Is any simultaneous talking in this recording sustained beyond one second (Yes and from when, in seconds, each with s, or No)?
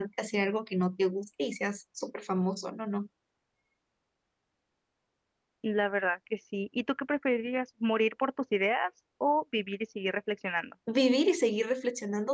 No